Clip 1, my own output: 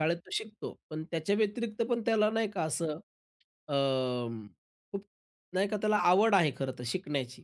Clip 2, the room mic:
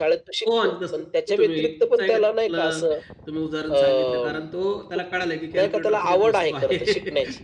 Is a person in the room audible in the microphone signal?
Yes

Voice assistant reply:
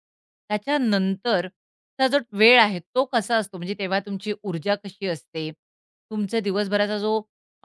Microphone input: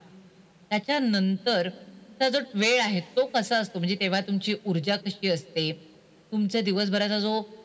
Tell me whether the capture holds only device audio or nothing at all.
Yes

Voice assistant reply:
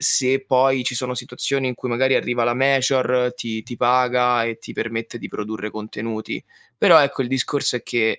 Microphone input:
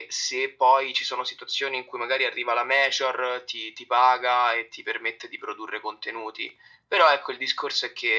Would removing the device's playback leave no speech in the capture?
Yes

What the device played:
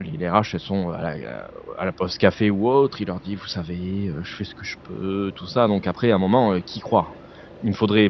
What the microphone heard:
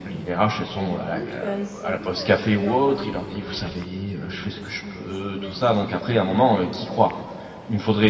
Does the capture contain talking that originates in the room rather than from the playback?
Yes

